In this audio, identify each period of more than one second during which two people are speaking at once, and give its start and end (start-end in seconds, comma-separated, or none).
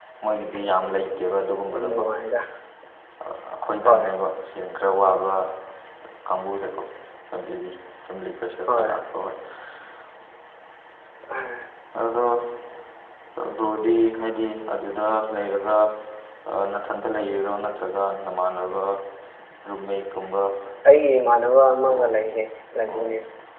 none